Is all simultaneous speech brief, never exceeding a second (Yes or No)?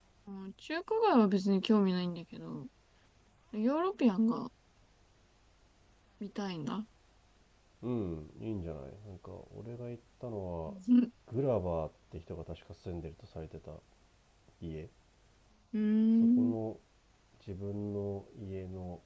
Yes